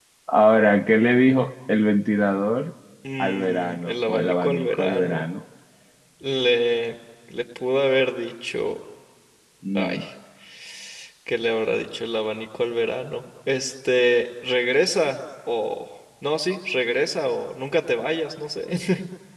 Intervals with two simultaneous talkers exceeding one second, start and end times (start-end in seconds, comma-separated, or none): 3.2-5.2